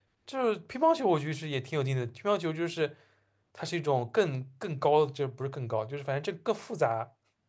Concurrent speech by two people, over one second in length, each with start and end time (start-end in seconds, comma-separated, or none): none